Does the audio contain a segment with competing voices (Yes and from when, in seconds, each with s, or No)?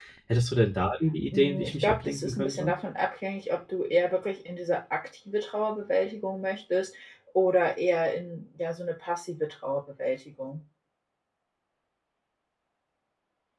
Yes, from 1.3 s